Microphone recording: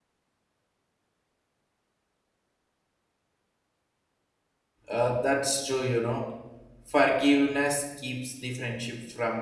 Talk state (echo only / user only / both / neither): user only